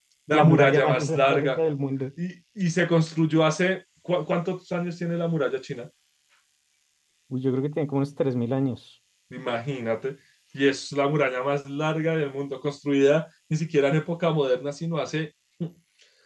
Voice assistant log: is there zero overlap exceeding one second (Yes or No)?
No